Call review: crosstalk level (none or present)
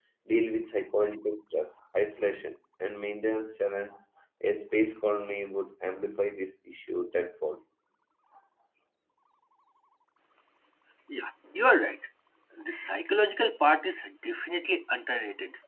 none